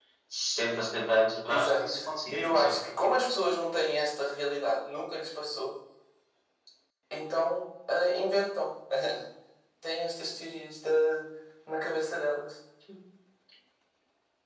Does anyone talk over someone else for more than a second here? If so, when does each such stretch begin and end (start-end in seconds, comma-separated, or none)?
1.5-2.8